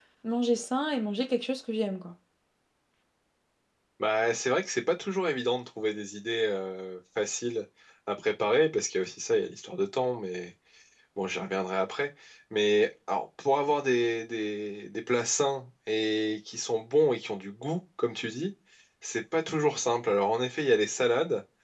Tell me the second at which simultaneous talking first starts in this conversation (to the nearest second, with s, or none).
none